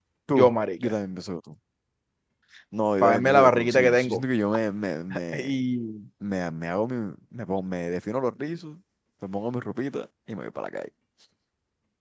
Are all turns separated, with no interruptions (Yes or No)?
No